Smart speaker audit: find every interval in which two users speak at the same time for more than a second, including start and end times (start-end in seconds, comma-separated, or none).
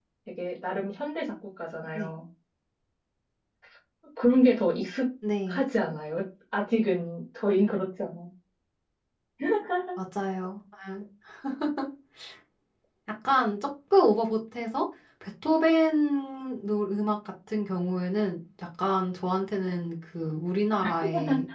none